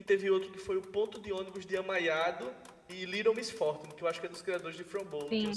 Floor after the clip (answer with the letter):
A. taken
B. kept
A